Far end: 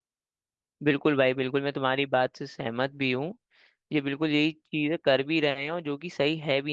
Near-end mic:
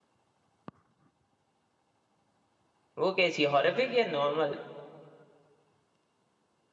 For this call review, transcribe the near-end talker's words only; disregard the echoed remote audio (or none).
वो कैसी है हॉरर या नॉर्मल